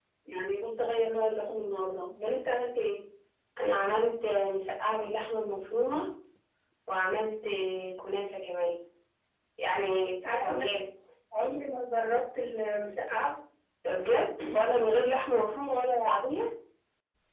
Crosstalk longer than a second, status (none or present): none